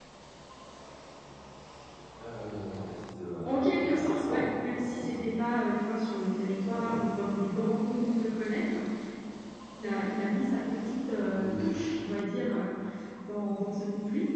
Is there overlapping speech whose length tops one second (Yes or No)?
Yes